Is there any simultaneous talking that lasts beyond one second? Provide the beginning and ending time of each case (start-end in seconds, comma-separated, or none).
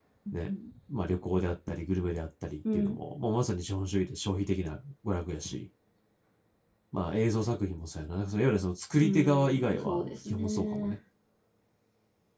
9.0-11.0